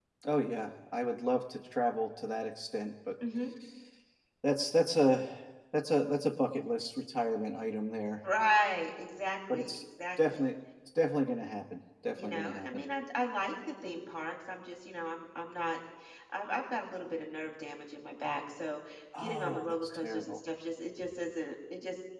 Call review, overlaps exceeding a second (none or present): present